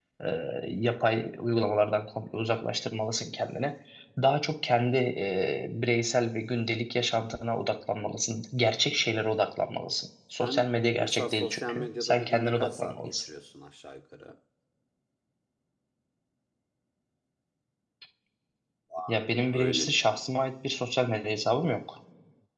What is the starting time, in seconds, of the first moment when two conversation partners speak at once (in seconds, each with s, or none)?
10.4 s